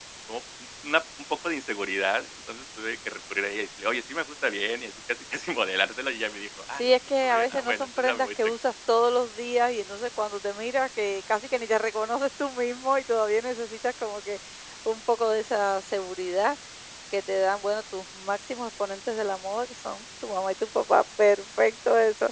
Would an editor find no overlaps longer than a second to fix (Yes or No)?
No